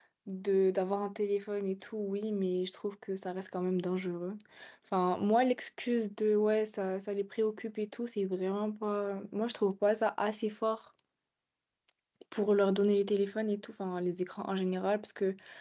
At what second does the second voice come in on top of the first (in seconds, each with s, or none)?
none